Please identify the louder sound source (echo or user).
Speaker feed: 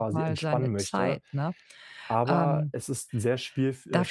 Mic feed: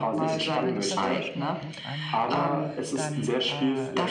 echo